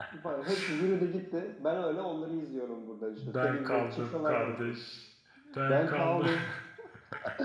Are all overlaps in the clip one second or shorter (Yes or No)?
No